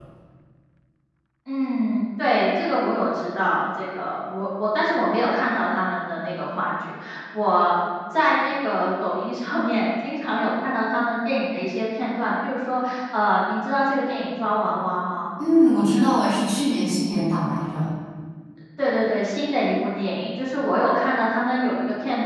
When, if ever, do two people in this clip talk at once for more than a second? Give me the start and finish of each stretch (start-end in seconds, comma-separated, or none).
none